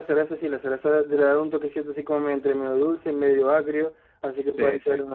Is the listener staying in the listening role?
Yes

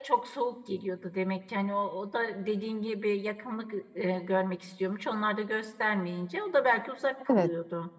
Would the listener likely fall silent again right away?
No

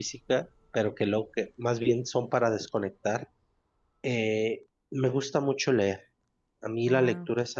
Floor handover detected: No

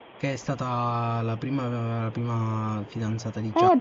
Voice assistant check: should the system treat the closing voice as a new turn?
Yes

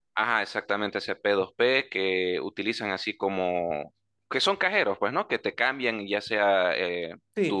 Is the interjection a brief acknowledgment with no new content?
No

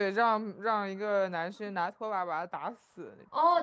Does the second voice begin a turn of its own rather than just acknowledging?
Yes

